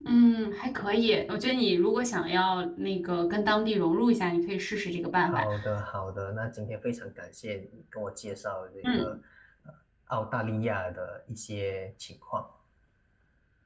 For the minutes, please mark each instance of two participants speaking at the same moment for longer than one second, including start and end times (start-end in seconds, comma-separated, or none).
none